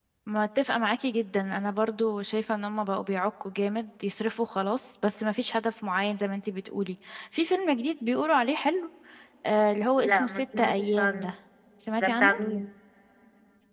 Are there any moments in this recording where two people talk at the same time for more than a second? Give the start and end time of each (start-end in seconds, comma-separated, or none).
10.1-11.3